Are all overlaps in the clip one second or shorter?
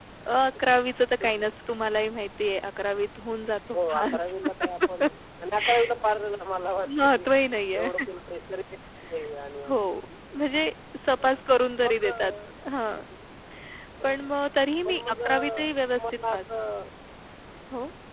No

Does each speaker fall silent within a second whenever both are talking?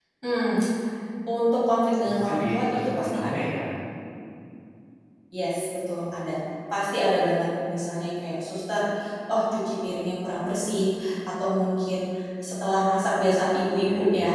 No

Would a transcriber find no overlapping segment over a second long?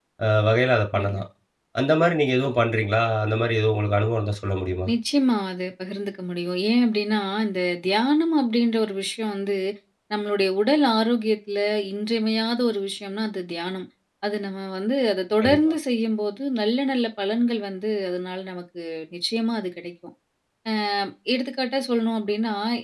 Yes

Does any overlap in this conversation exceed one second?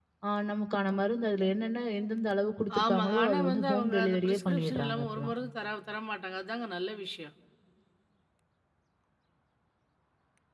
Yes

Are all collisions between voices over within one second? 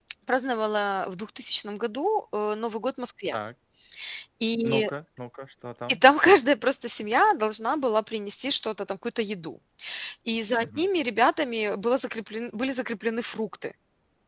Yes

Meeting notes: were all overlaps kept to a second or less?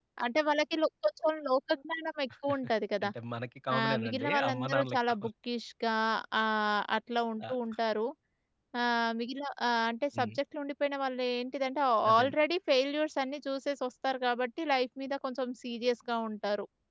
No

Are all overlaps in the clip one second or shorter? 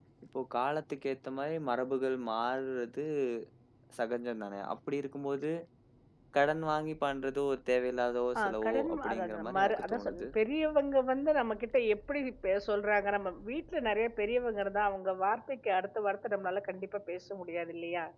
No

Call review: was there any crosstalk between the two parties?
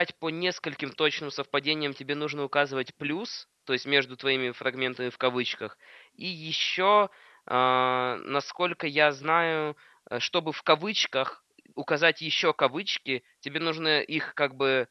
No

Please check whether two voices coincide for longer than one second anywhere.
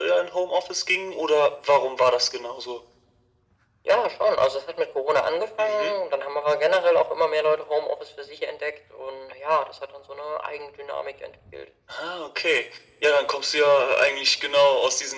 No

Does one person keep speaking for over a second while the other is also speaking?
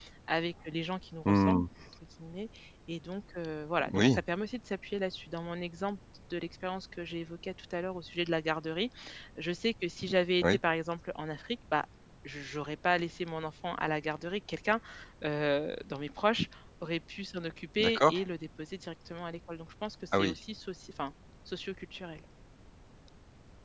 No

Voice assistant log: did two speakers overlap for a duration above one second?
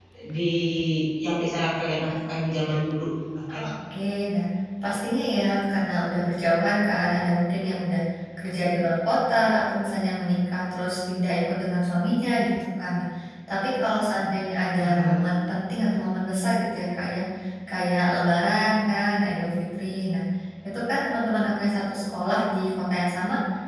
No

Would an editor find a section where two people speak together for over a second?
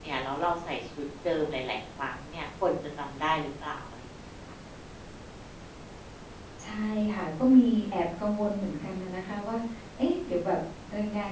No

